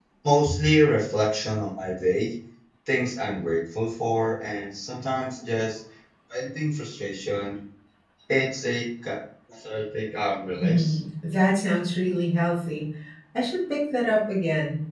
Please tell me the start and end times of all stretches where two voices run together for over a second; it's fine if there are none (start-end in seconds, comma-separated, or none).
none